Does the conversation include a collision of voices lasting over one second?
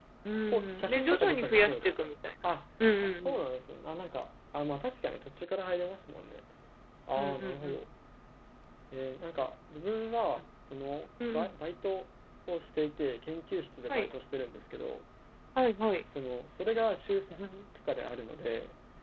Yes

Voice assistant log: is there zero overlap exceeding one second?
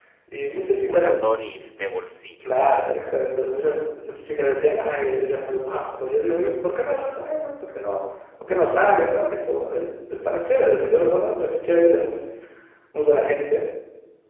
Yes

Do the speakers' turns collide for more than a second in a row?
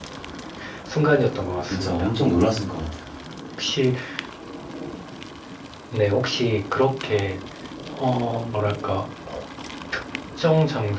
No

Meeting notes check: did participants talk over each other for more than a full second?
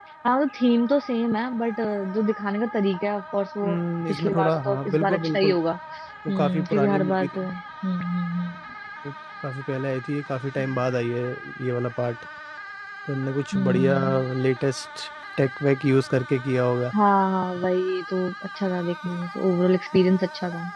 Yes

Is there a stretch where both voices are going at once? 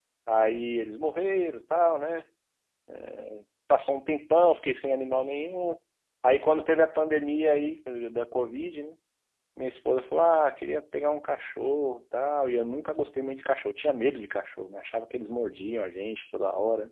No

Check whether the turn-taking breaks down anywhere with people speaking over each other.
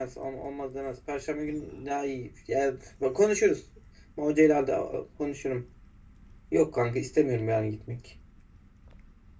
No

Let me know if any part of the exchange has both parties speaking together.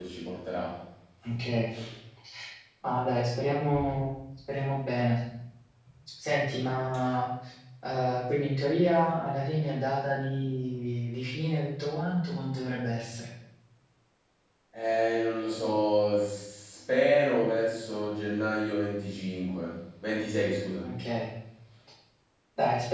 No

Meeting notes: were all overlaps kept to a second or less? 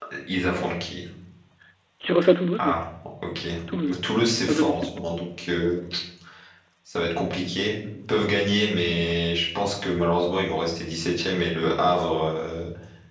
Yes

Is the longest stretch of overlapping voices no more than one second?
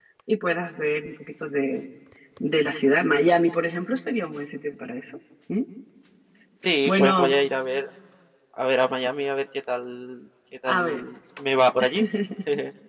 Yes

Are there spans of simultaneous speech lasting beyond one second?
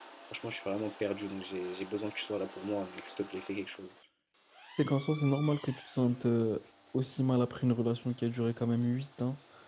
No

